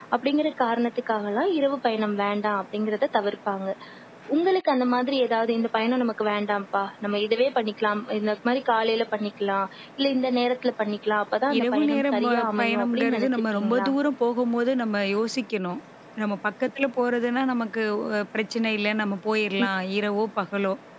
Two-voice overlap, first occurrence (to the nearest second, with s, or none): 11 s